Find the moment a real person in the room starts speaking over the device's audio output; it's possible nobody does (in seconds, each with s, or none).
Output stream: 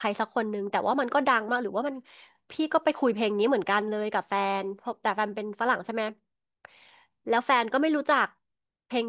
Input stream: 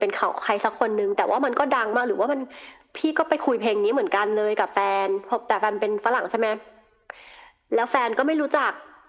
none